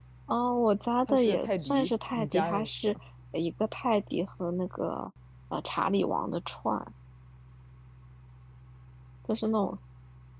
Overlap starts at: 1 s

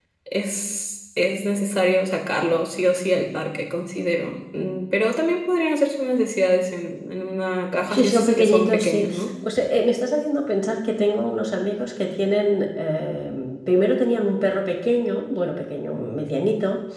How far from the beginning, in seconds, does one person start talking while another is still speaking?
8 s

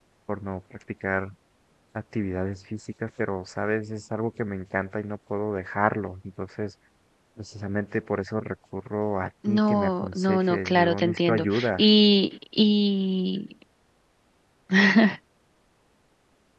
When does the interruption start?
9 s

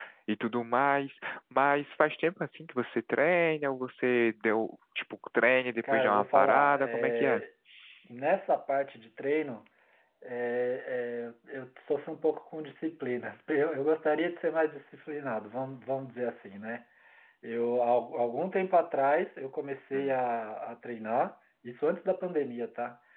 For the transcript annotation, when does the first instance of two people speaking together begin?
6 s

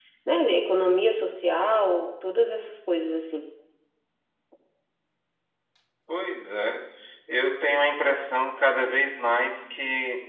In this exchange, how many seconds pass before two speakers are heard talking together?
none

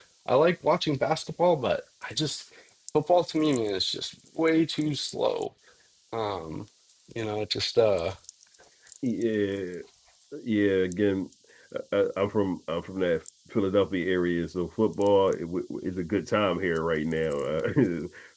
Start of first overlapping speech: none

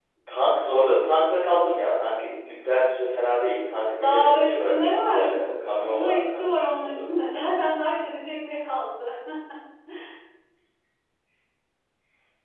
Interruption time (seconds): 4 s

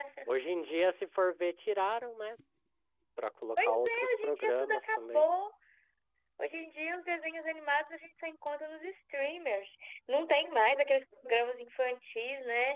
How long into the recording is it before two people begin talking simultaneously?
4 s

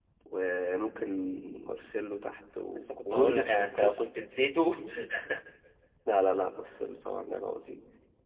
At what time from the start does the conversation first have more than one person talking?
3 s

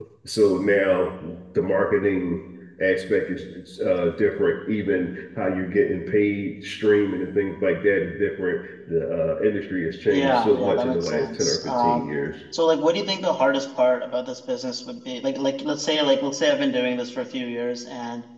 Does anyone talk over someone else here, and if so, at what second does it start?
10 s

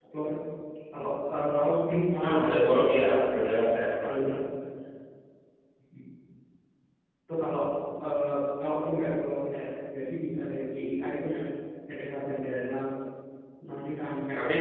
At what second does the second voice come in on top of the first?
2 s

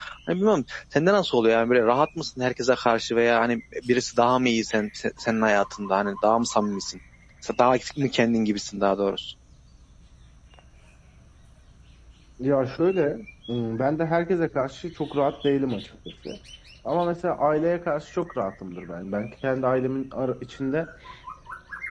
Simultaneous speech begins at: none

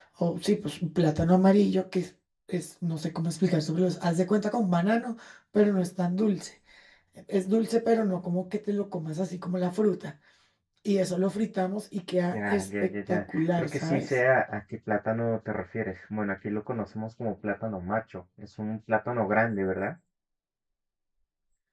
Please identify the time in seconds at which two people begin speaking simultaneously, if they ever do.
12 s

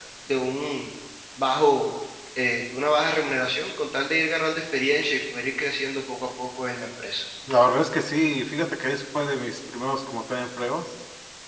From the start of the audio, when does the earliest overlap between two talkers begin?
none

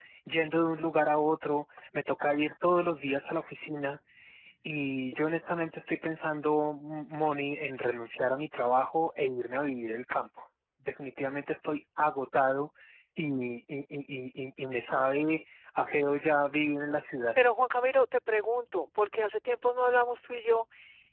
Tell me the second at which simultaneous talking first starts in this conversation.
none

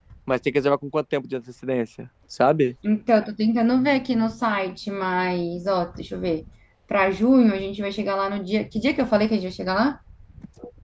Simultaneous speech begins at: none

